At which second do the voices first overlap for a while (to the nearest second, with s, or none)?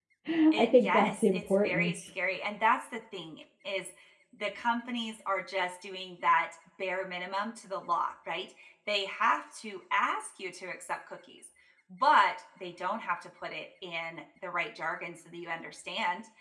1 s